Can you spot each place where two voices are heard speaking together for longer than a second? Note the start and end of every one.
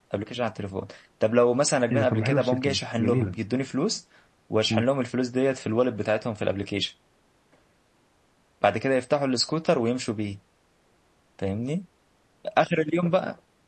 1.9-3.3

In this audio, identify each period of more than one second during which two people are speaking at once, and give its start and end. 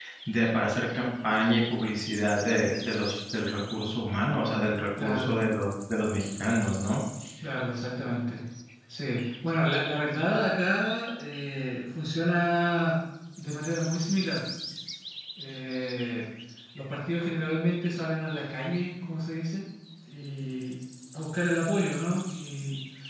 none

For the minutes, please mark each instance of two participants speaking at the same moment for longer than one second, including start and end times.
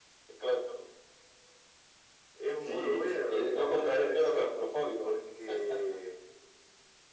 2.6-4.5

